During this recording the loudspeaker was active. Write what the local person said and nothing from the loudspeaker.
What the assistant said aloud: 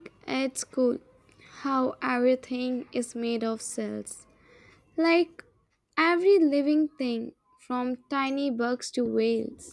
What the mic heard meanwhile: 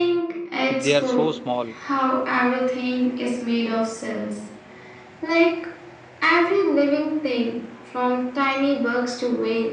if they are so small?

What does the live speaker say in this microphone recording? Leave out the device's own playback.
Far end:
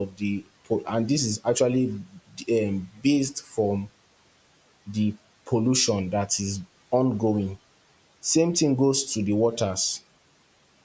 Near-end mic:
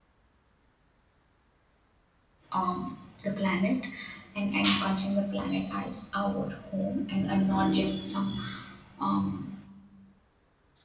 um, the planet and and considering the planet as our home and, and not just some um,

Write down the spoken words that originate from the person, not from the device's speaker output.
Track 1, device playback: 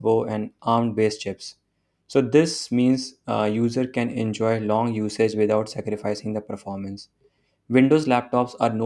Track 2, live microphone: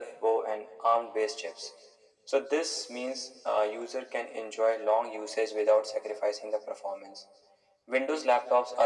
none

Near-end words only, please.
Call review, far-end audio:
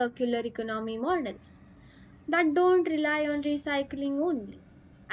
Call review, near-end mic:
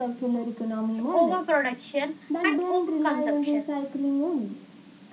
It's overproduction and overconsumption.

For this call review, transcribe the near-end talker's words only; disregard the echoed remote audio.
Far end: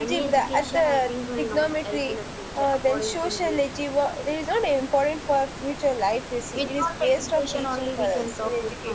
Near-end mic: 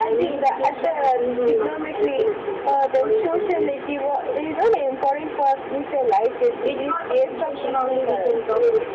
none

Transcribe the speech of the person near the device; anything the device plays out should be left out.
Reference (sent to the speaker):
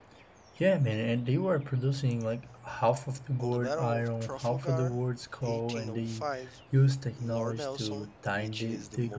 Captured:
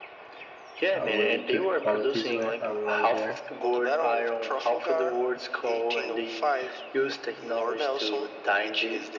uh, really good qualities right uh, right there.

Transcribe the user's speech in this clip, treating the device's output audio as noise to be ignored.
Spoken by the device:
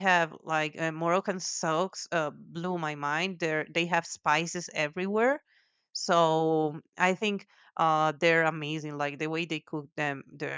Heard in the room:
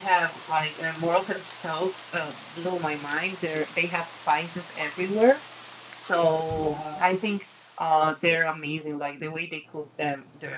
wow.

